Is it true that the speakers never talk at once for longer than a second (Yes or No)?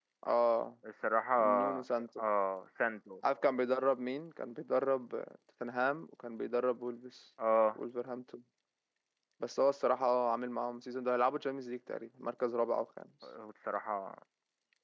Yes